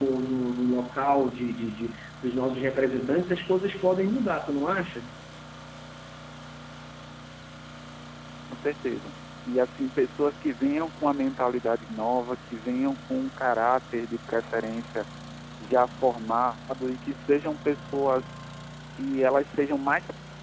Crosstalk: none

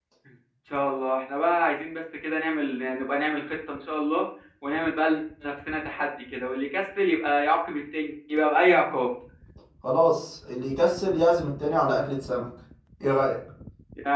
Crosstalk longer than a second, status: none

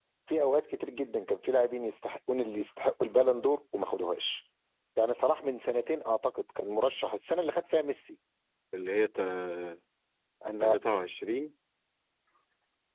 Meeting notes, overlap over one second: none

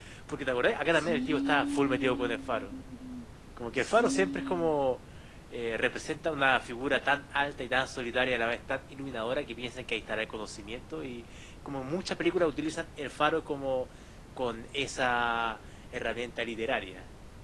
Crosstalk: present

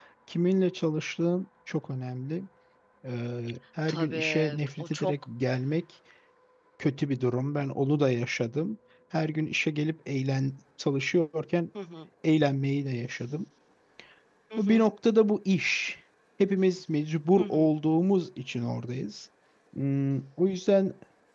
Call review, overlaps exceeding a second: present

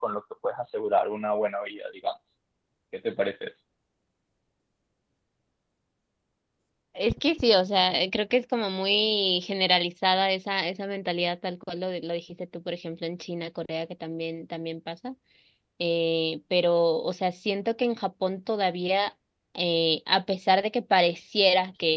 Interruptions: none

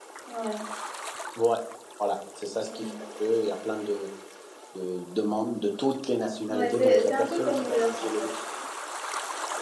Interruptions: present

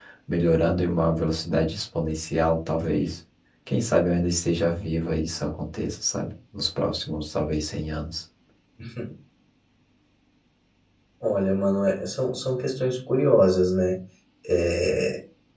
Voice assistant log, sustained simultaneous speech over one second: none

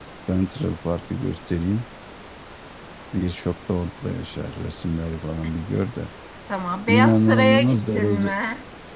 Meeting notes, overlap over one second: present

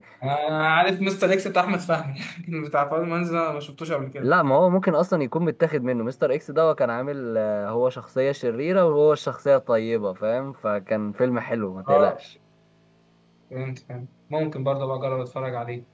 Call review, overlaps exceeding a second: none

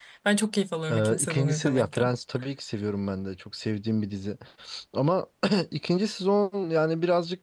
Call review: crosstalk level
present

